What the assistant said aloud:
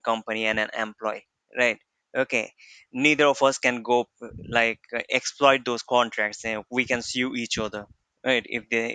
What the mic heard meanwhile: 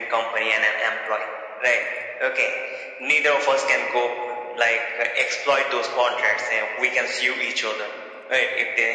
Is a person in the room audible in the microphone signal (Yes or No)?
No